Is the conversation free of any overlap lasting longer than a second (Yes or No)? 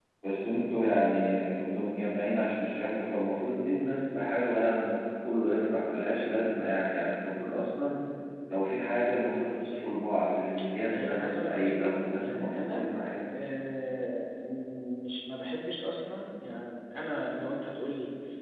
No